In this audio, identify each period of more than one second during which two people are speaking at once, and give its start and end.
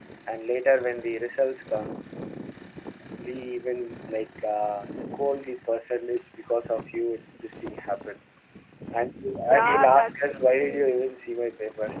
9.4-11.0

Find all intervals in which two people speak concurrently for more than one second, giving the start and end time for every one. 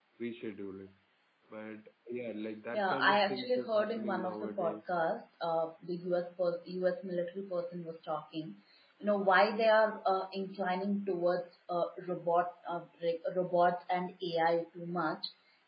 2.7-4.8

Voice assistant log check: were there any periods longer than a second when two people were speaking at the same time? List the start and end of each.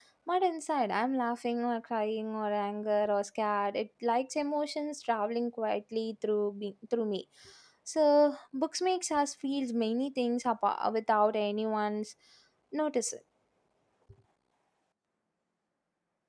none

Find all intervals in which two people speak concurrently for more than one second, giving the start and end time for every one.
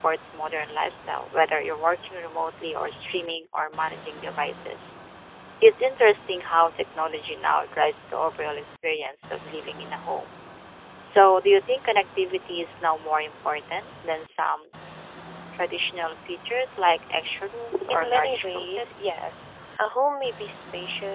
17.9-19.3

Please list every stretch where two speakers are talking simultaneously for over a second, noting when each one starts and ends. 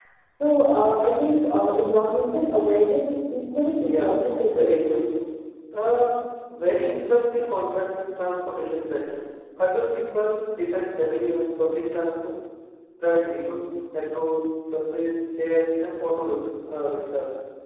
3.8-5.0

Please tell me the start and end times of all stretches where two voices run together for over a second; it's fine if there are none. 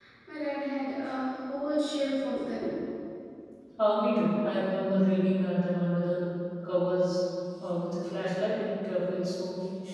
none

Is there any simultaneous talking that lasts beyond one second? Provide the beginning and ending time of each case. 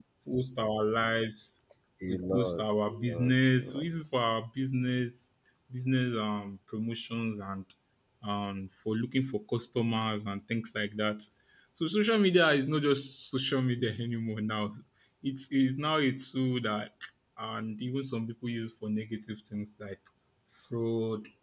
2.1-4.2

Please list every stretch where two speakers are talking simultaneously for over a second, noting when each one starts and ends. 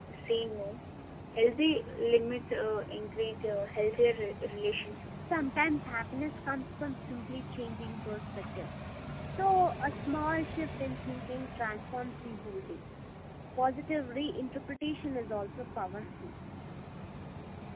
none

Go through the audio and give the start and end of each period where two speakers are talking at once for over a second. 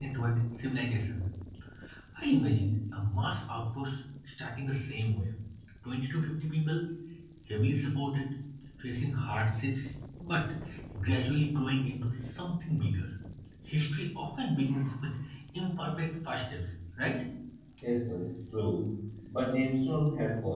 none

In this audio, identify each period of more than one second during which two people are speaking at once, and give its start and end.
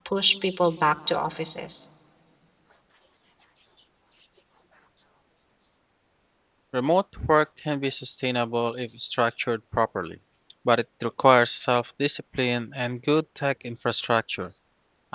none

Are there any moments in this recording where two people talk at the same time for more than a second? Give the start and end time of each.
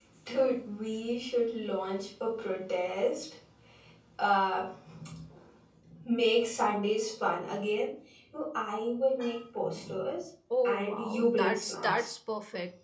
10.6-12.1

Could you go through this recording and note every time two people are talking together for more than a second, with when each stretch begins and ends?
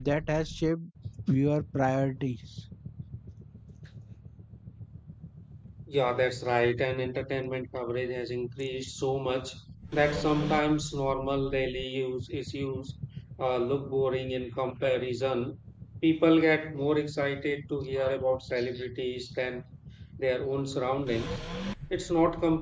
none

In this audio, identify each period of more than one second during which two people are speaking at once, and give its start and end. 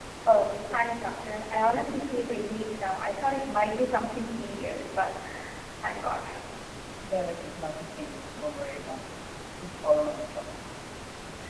none

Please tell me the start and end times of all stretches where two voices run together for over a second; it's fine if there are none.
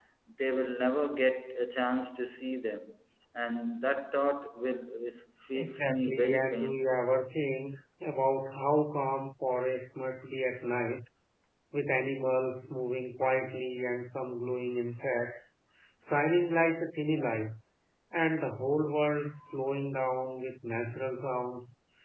5.5-7.0

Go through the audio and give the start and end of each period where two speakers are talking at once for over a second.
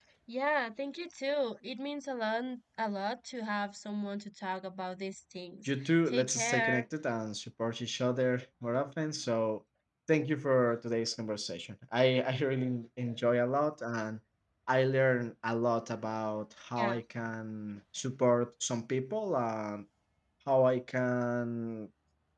5.7-6.8

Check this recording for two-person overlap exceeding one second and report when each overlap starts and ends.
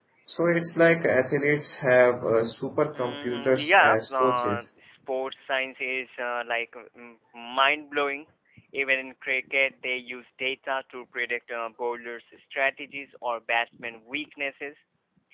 2.9-4.6

